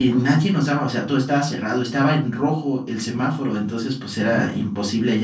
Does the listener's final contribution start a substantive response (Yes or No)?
No